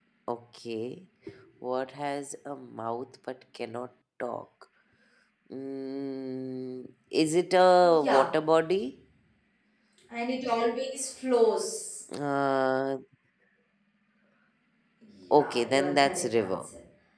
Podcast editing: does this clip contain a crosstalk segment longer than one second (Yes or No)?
Yes